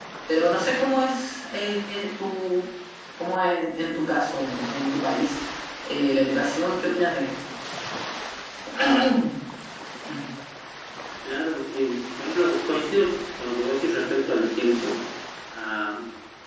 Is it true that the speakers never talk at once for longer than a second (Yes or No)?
Yes